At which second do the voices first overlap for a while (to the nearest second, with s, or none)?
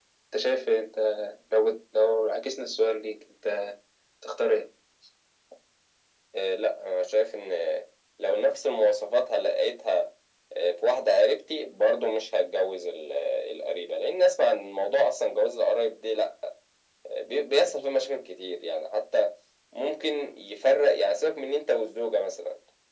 none